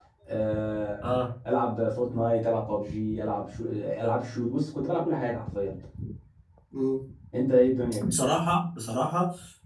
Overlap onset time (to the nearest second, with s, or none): none